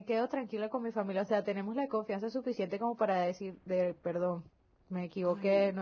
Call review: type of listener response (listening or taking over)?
listening